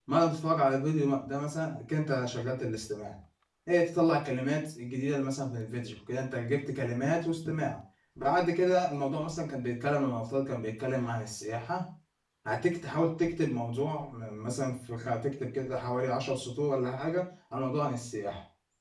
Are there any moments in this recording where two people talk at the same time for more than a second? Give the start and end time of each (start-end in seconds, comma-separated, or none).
none